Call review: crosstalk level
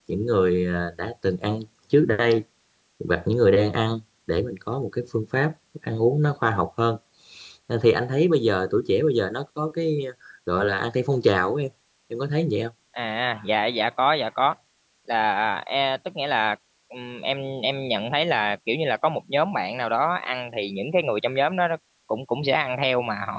none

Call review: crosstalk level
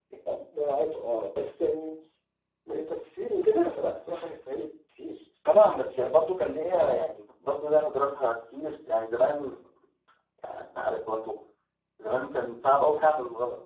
none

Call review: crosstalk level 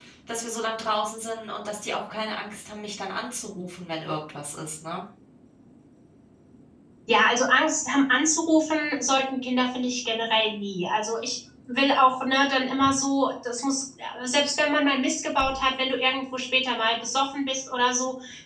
none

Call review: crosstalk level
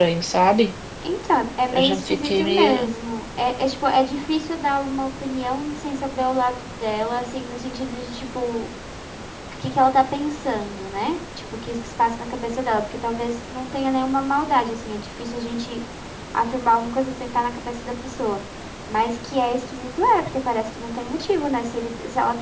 present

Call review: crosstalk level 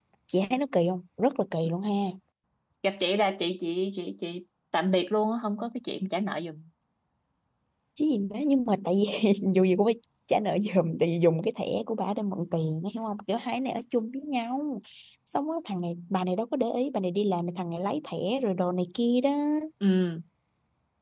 none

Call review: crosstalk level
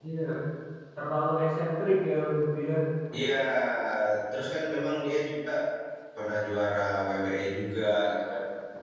none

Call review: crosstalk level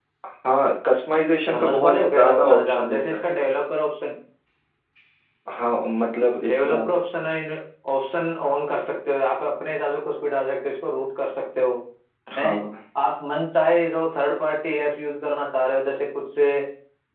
present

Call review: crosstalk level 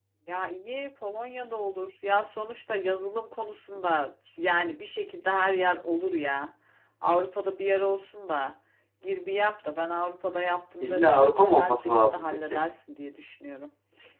present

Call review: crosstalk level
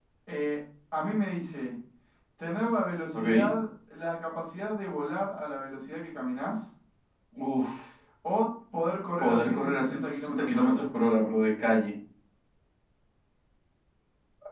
present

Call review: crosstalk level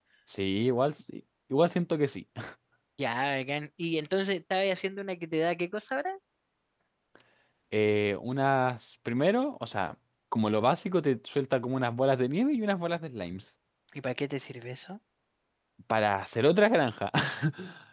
none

